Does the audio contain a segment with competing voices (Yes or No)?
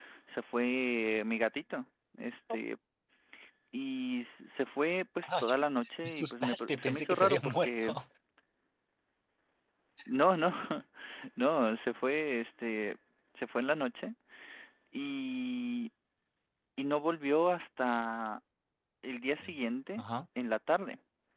Yes